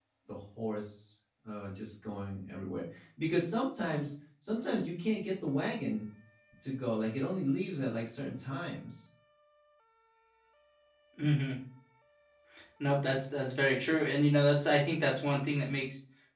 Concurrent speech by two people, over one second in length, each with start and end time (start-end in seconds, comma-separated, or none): none